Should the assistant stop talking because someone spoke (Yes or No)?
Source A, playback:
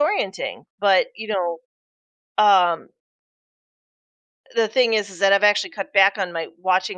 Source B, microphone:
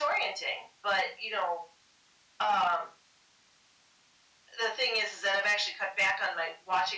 No